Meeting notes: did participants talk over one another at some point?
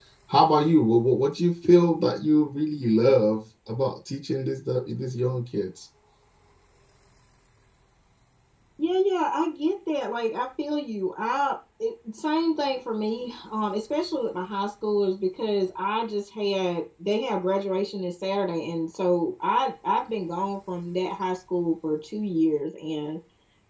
No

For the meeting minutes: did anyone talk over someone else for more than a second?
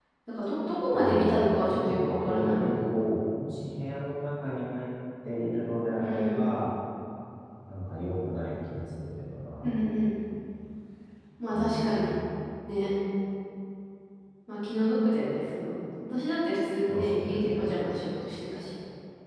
Yes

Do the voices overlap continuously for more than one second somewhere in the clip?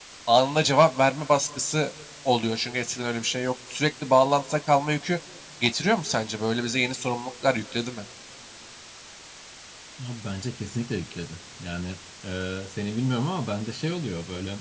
No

